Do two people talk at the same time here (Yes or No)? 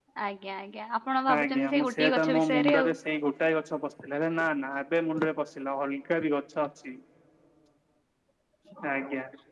Yes